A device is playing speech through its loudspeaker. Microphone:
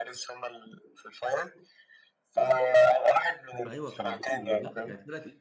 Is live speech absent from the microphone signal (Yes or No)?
No